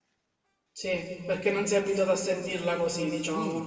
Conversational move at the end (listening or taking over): taking over